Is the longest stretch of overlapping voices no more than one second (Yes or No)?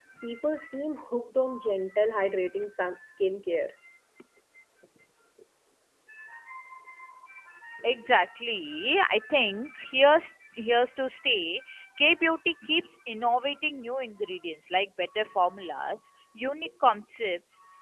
Yes